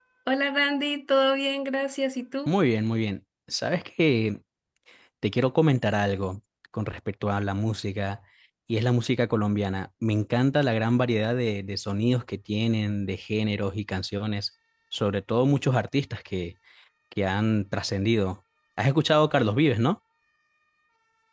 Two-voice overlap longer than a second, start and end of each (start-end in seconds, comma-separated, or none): none